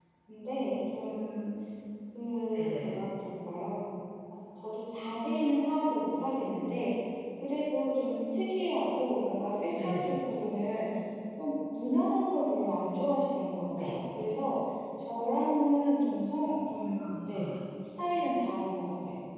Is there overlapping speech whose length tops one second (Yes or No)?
No